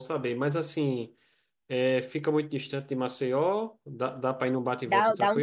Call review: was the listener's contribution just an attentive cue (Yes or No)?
No